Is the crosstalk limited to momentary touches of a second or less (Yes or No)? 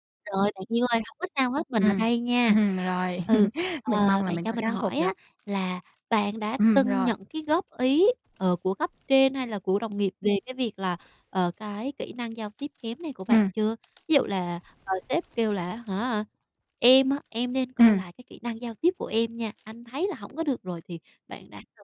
No